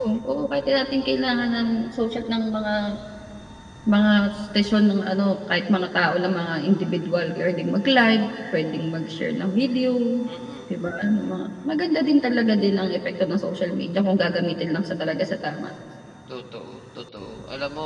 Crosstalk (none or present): none